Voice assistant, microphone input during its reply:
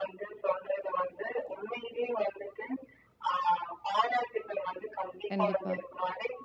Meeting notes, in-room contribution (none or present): present